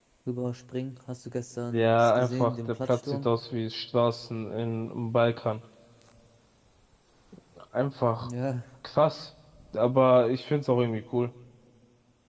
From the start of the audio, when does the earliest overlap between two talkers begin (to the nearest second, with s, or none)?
2 s